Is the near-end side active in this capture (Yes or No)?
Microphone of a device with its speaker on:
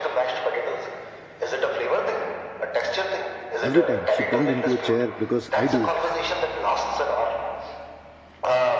Yes